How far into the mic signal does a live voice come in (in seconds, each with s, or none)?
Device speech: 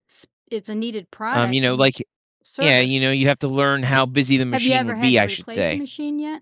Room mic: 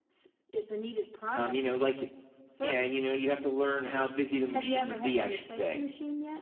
none